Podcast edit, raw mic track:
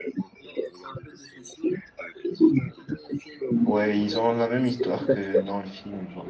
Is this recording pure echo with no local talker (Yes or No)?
No